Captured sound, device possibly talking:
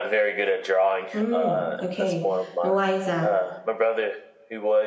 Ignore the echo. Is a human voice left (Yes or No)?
Yes